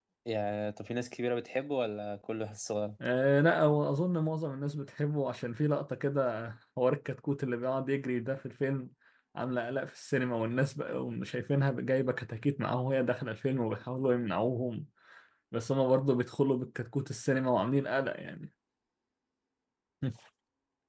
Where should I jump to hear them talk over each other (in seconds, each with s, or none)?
none